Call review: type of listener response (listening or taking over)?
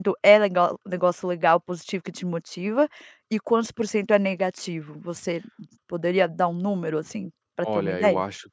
taking over